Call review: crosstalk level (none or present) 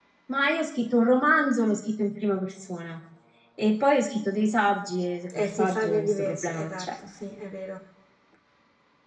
present